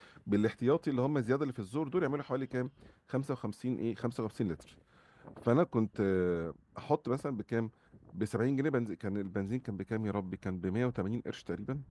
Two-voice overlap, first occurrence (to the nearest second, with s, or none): none